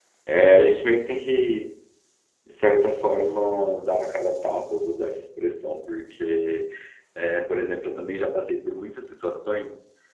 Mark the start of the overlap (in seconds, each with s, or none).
none